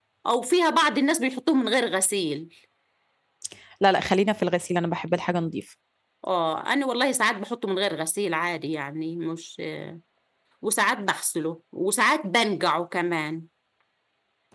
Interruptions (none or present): none